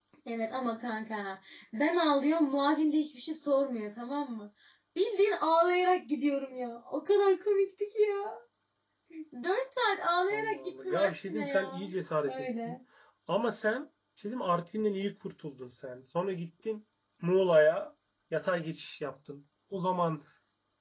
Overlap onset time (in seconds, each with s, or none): 10.3 s